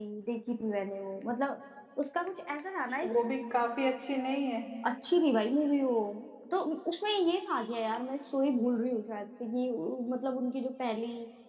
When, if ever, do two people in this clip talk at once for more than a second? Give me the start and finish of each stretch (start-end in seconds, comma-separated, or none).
none